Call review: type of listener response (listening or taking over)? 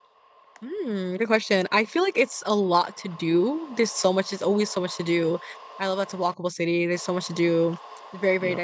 listening